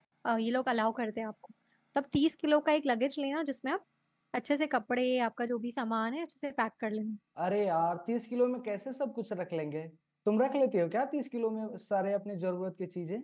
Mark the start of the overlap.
none

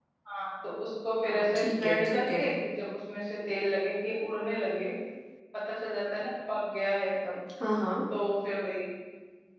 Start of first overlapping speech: 1.2 s

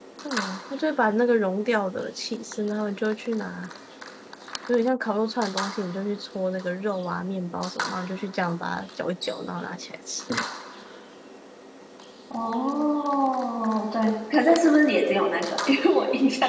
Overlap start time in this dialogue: none

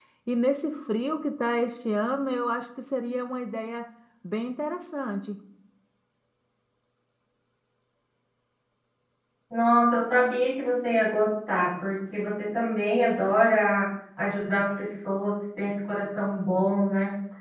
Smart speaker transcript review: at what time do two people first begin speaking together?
none

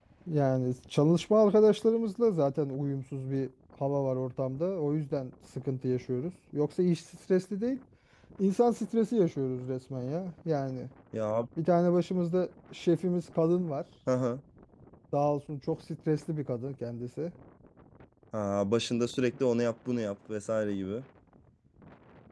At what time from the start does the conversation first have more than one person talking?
none

